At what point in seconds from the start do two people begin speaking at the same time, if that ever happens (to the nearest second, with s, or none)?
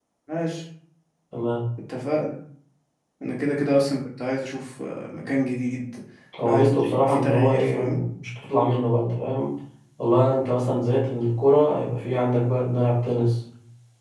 6 s